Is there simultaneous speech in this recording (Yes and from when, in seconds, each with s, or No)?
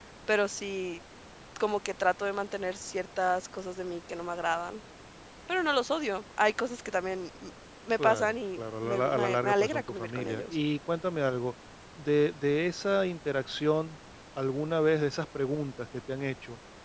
Yes, from 8.0 s